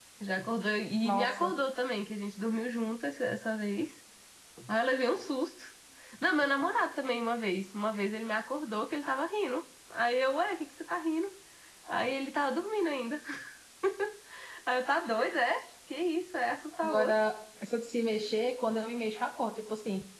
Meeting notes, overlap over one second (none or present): none